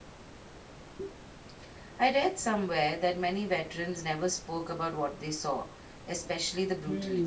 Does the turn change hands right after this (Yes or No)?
Yes